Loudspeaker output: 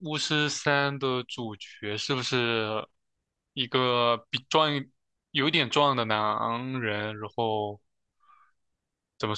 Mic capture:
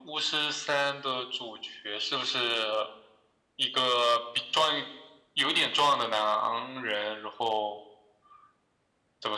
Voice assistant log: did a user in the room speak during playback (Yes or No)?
No